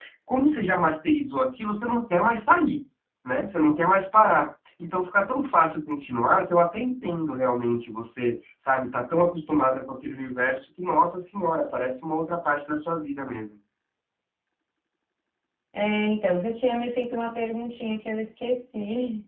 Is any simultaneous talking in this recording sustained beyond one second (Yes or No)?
No